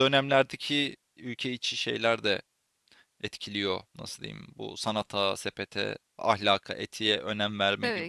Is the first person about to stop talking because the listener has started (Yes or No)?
No